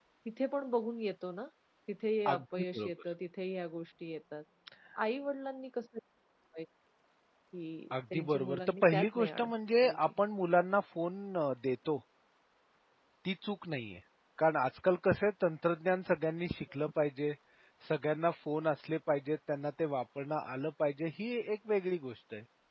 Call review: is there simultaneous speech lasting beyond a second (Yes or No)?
Yes